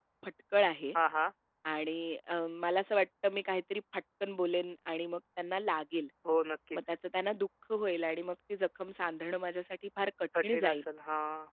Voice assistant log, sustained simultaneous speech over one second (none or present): none